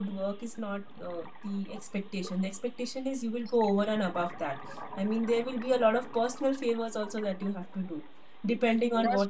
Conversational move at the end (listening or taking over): listening